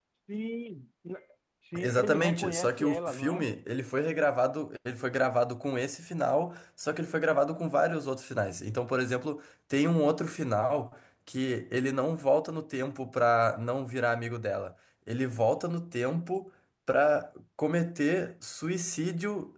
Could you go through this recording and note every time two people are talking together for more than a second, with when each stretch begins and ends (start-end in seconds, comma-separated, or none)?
1.8-3.5